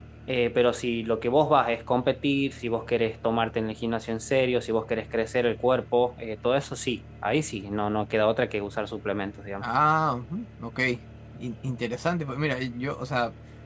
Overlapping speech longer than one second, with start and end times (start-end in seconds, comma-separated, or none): none